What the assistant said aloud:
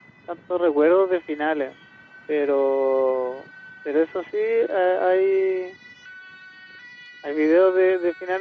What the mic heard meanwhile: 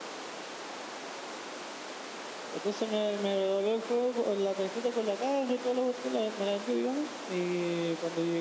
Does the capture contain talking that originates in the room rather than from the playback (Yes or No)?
Yes